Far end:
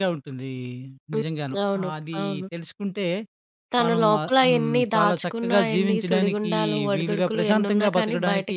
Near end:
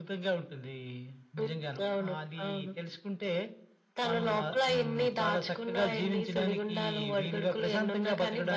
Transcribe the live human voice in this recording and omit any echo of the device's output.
none

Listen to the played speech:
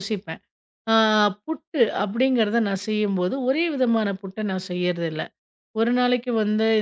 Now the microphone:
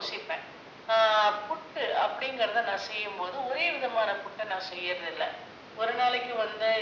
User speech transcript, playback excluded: none

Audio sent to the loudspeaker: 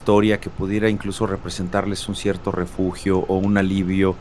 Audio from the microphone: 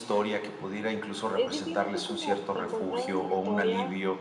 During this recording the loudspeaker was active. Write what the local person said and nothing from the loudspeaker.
Es simplemente como encontrar una historia

